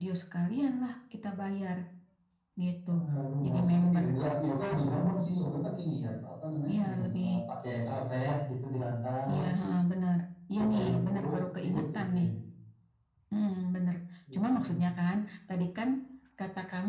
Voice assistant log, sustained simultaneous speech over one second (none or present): present